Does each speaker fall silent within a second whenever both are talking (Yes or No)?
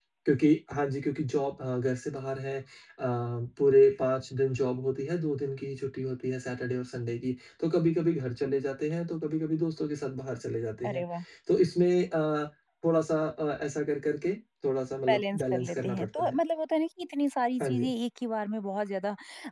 No